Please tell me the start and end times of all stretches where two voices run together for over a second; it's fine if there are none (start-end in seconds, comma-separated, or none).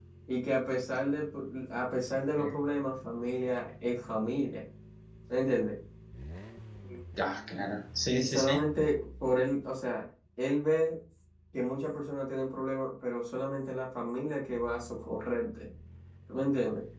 none